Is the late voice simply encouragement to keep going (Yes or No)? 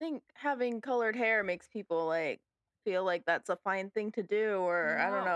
Yes